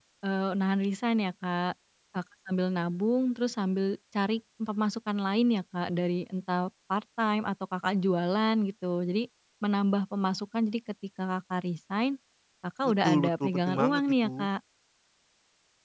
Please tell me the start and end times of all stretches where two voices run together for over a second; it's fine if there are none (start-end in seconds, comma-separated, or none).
13.0-14.5